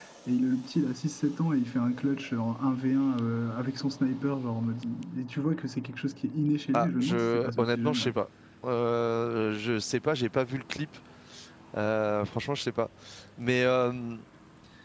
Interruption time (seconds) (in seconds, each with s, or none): 6.7 s